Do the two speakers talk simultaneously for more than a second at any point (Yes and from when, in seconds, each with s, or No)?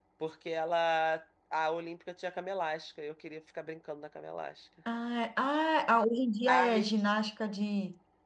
No